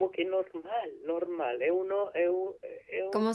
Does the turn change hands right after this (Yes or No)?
Yes